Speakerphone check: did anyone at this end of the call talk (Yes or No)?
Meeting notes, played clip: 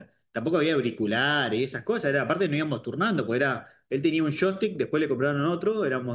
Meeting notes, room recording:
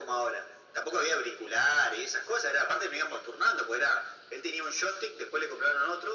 No